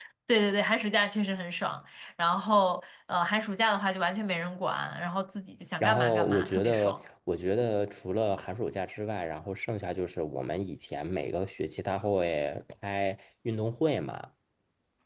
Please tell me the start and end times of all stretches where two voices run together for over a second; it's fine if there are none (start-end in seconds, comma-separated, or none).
5.8-7.0